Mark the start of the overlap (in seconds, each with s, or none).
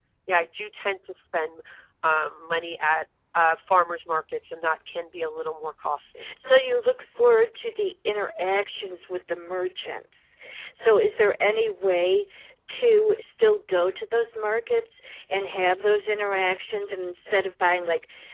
none